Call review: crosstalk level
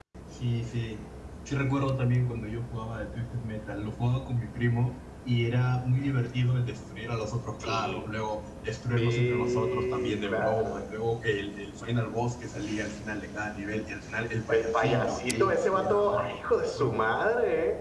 present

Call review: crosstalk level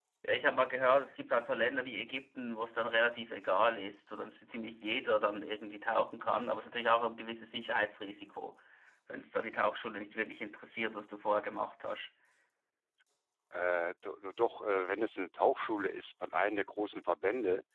none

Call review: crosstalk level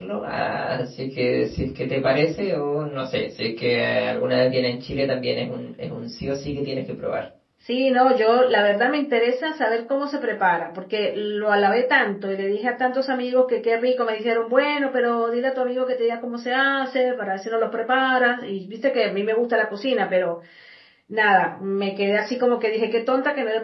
none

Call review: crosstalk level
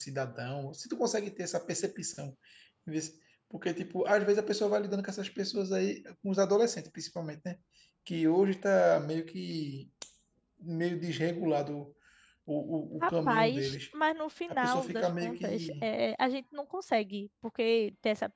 present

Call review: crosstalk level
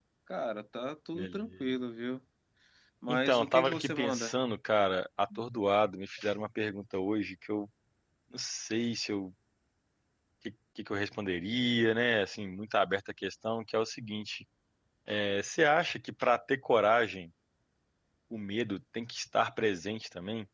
present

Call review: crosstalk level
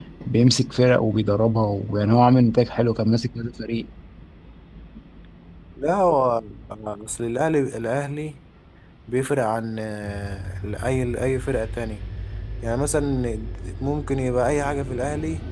none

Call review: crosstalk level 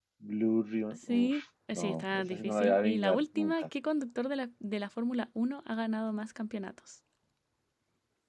present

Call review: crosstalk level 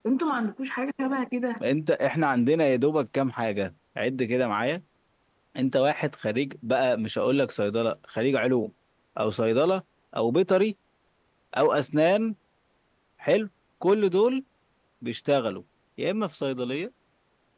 none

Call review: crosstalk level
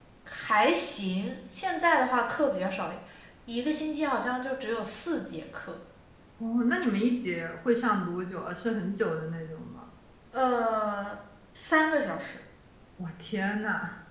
none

